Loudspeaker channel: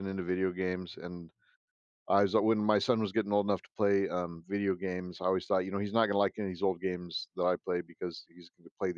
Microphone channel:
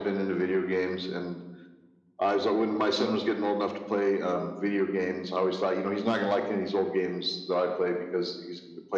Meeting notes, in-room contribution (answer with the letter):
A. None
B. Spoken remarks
A